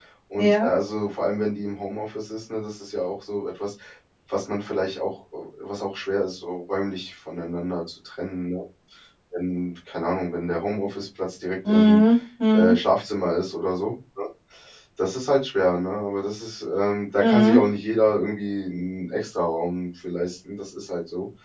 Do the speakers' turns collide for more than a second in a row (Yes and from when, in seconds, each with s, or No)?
No